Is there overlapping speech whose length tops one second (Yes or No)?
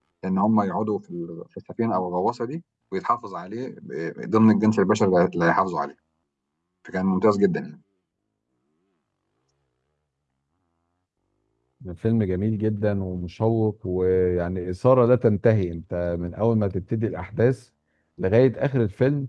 No